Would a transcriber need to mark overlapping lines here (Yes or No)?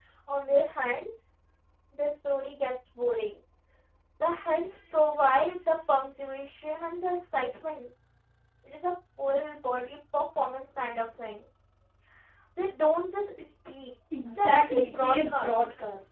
Yes